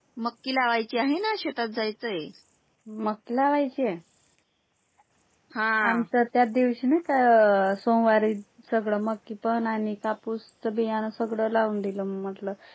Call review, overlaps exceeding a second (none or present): none